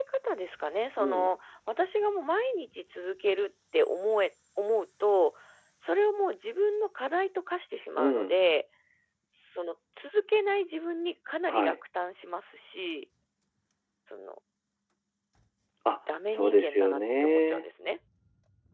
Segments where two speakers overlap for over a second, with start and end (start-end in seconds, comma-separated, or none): 16.3-17.6